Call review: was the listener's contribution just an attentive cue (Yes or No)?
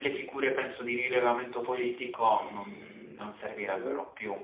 No